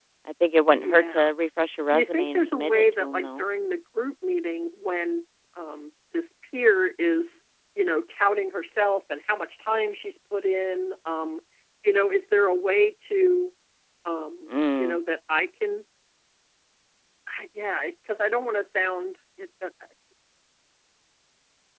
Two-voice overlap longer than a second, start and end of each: 1.9-3.5

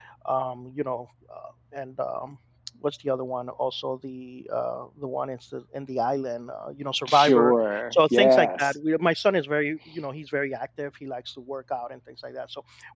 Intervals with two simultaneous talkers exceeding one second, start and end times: 7.1-8.7

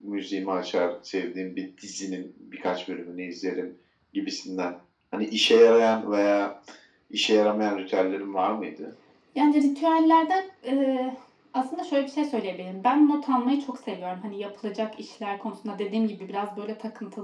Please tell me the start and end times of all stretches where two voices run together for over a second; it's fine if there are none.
none

